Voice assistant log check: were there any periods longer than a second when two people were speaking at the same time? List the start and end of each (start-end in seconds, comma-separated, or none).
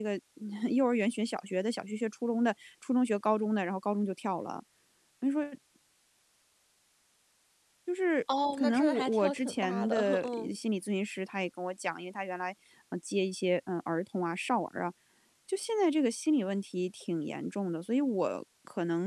8.5-10.5